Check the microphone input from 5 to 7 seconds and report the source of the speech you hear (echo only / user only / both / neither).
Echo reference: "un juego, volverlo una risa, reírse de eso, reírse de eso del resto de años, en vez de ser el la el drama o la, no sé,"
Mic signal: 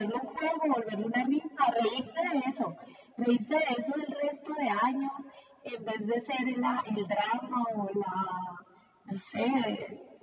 echo only